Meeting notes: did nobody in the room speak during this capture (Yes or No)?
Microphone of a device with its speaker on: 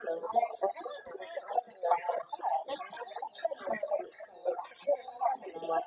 Yes